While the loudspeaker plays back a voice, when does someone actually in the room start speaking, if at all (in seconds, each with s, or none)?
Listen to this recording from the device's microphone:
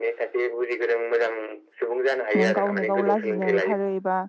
2.4 s